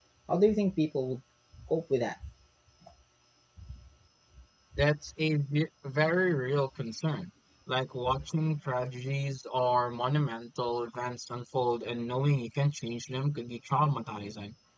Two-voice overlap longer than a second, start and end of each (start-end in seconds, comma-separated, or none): none